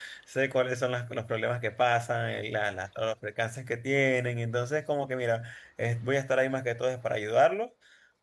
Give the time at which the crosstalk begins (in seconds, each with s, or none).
none